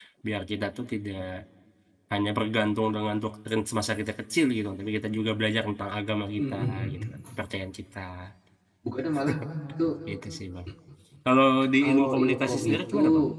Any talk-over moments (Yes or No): Yes